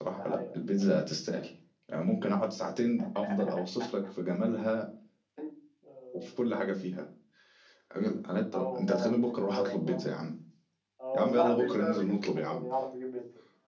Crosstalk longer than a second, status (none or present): present